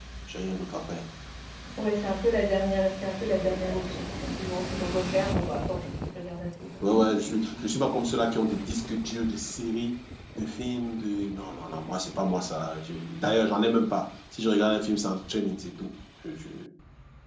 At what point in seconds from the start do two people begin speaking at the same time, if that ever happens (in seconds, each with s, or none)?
none